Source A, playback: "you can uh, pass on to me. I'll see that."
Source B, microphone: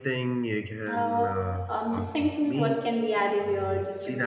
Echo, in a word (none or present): present